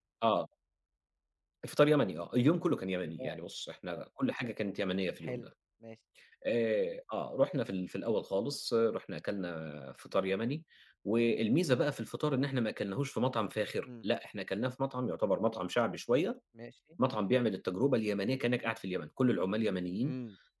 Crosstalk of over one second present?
No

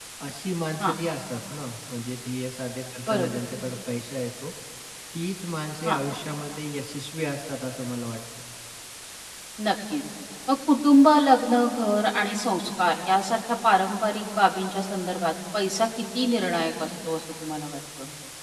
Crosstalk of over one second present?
No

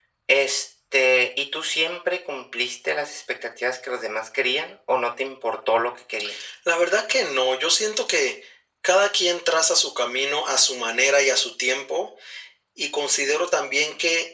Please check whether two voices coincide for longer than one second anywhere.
No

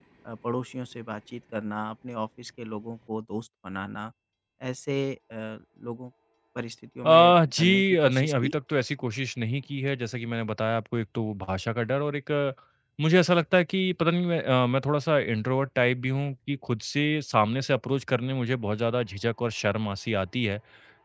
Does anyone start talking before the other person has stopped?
Yes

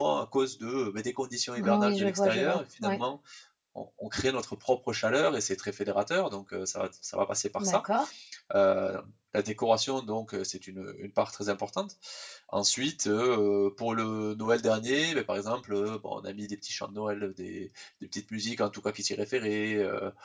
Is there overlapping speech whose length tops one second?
Yes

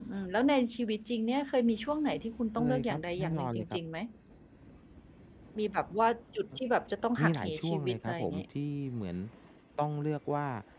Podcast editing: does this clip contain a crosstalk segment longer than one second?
Yes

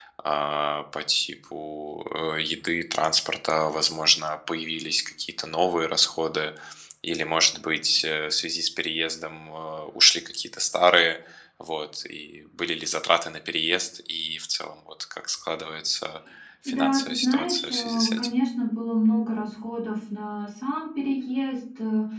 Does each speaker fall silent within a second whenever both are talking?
No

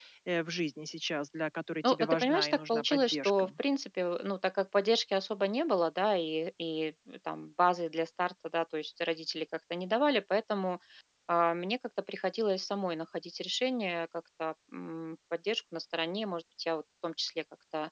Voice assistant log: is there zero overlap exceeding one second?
No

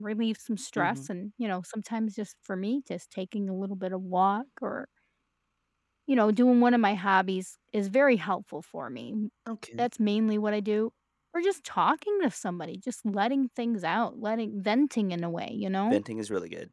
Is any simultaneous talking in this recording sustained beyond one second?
No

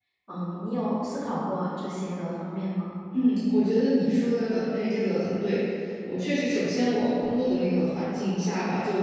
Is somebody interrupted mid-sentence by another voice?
No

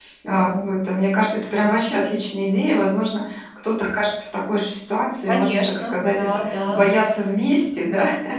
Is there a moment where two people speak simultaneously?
Yes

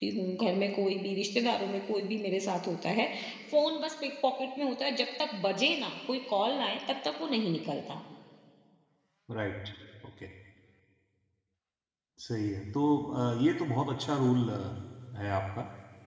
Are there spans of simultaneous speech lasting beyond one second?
No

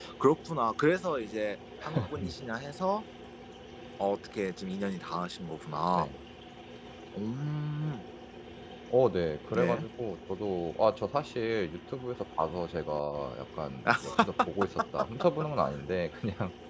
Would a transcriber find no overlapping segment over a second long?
Yes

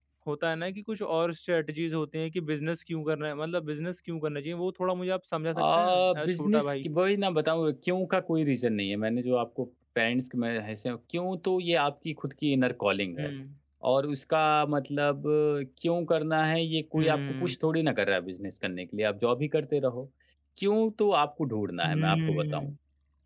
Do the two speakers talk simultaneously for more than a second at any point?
Yes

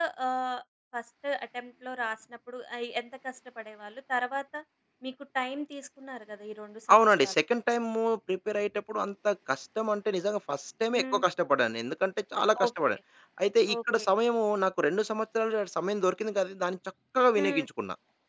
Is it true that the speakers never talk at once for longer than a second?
Yes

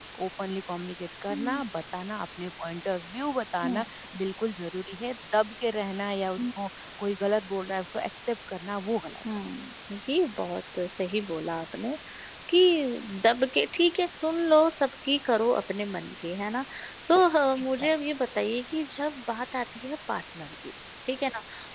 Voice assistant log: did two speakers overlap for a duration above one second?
No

